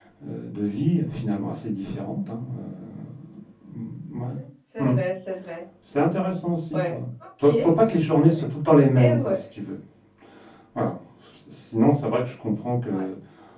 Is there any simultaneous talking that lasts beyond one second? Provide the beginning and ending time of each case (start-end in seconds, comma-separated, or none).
none